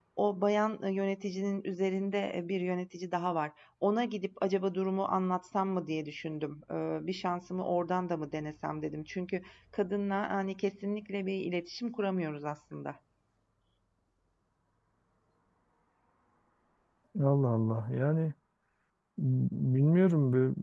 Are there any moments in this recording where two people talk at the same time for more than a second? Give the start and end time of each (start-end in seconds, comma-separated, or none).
none